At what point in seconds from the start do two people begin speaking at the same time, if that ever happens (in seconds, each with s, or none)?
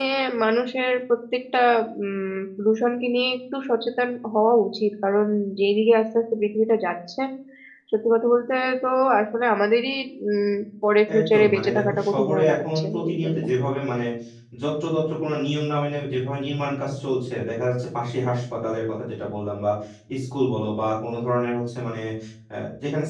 11.1 s